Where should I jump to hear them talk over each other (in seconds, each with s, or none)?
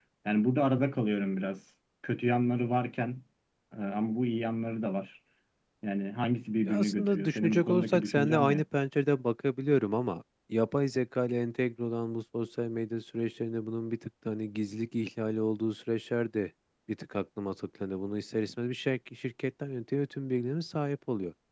6.7 s